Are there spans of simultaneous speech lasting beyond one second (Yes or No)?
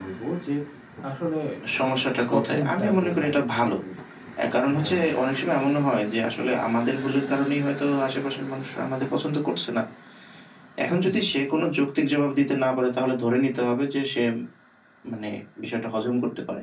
Yes